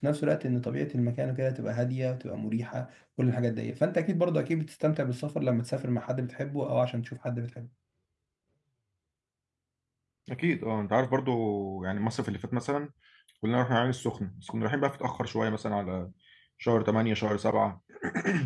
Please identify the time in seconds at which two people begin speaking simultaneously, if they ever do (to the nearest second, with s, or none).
none